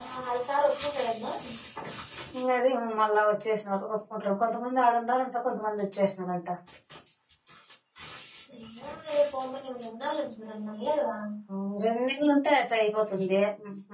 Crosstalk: none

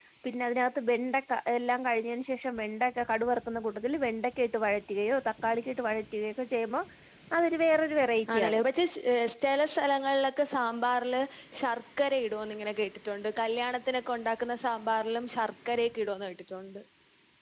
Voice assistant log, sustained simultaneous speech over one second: none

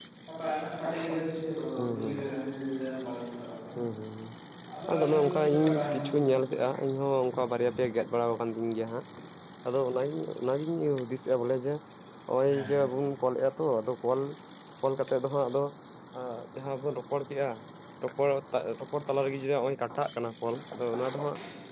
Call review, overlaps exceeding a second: present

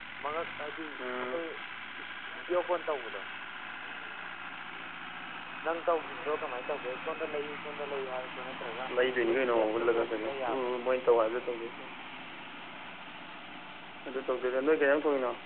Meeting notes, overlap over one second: present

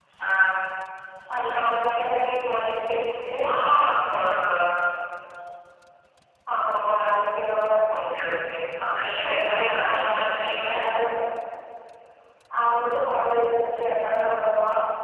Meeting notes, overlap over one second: present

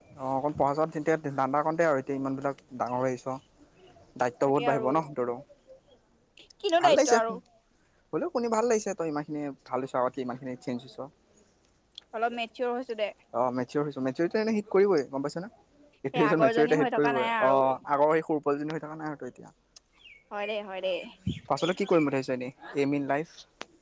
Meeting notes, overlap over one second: present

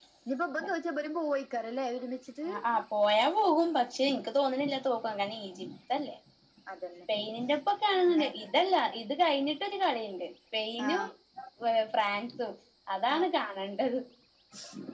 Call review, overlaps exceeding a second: none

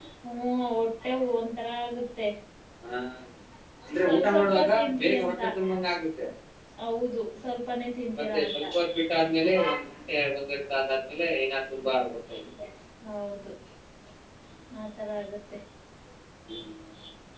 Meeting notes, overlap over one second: present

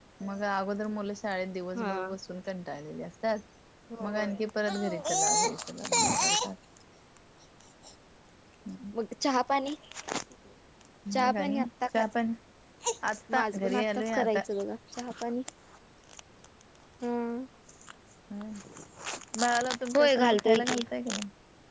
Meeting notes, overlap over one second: present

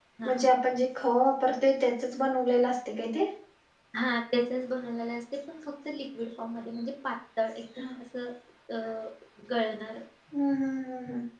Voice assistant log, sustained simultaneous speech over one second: none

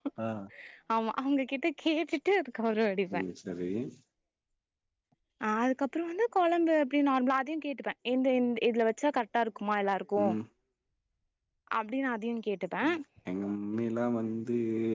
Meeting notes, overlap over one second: none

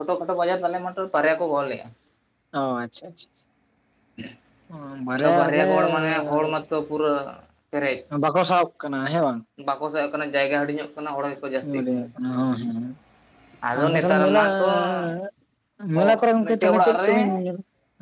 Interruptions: present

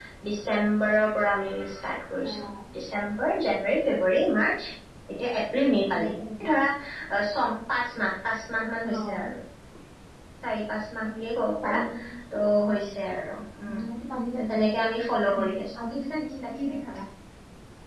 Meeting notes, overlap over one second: none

